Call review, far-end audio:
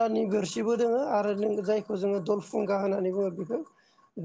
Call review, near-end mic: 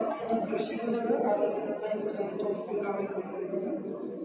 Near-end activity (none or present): present